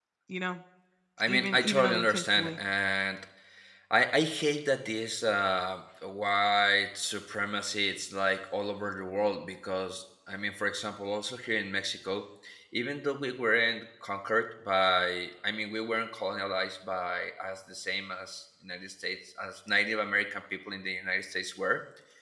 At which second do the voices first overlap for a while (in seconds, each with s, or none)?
1.3 s